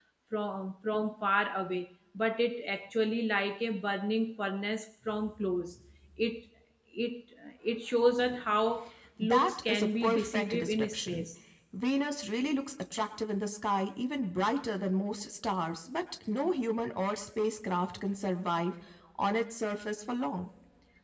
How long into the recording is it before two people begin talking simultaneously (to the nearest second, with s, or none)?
9 s